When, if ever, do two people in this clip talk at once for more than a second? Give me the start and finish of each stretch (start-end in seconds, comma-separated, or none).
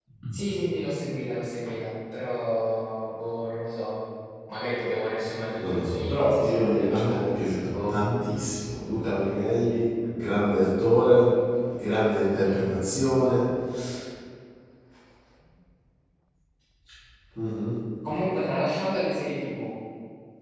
5.6-7.2